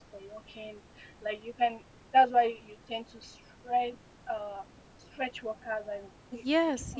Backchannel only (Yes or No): No